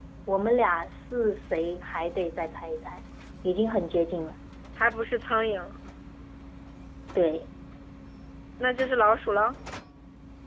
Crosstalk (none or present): none